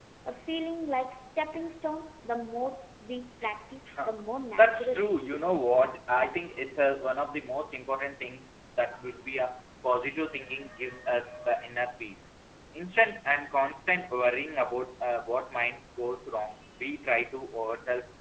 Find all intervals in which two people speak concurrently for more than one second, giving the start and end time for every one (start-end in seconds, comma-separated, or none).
4.5-5.8